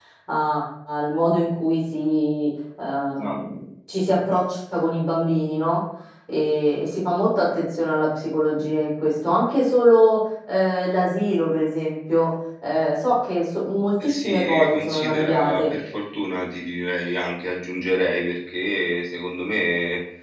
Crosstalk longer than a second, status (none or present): present